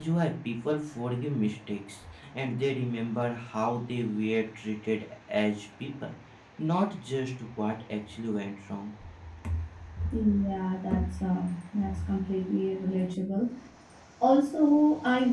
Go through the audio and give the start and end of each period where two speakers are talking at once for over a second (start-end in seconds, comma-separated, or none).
none